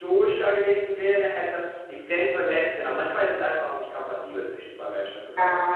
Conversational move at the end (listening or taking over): taking over